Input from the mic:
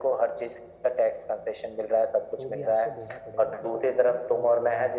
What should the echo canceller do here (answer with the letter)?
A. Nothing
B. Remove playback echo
B